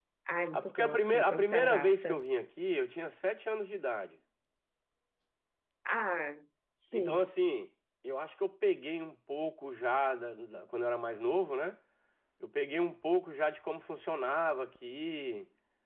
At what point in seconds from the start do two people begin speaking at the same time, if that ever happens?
0.5 s

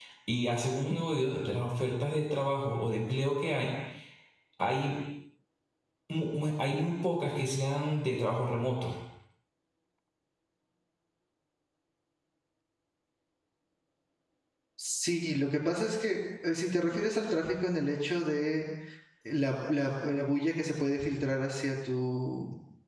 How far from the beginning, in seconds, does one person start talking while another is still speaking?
none

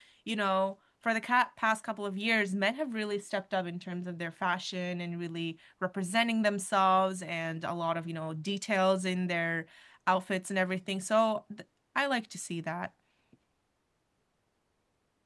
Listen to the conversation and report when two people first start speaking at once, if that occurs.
none

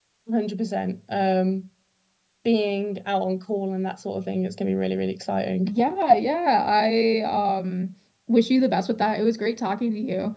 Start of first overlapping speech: none

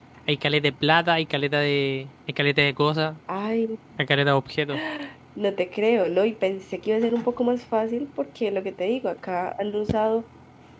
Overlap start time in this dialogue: none

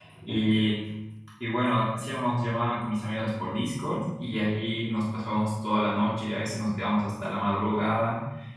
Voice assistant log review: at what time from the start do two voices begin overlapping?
none

